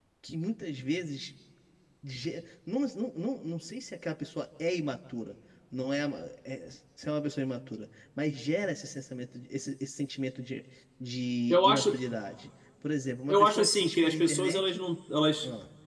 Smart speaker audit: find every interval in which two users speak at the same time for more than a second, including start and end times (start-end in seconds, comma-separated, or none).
13.3-14.8